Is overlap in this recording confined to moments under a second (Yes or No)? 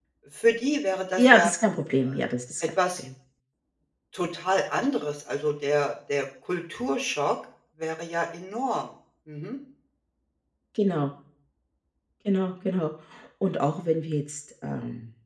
Yes